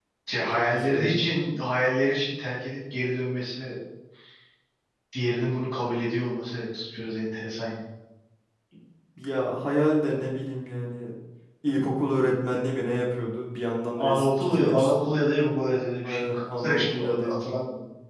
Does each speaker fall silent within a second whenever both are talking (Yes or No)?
No